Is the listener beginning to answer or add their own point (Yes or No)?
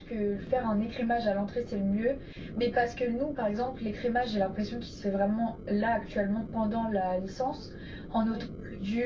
No